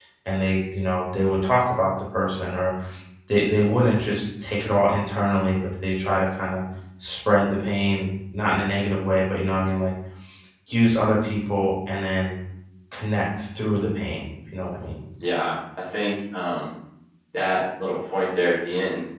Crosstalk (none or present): none